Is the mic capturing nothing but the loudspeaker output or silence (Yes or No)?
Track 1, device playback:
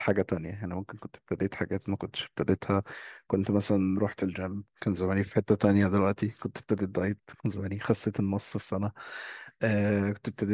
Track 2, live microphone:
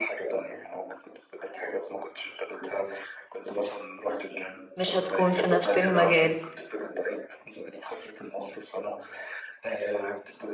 No